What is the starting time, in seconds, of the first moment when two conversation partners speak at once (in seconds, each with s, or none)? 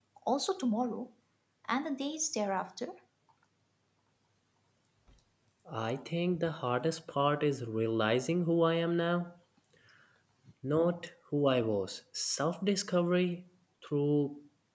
none